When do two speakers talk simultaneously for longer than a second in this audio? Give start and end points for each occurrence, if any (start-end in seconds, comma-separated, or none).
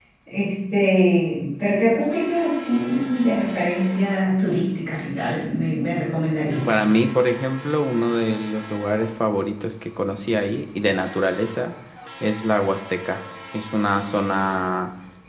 none